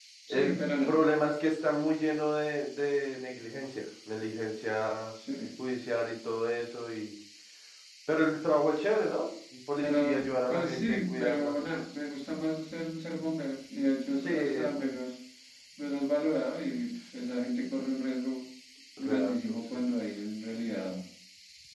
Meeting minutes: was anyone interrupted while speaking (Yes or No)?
Yes